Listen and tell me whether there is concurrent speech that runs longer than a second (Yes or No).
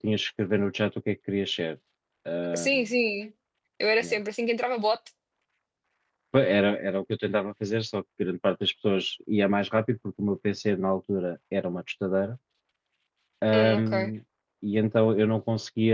No